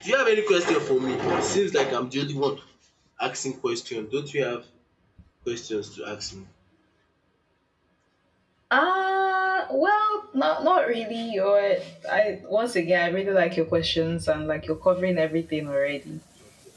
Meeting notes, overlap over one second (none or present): none